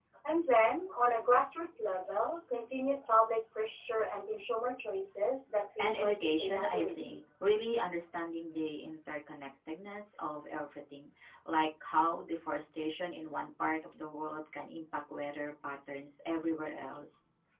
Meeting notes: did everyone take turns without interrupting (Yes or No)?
No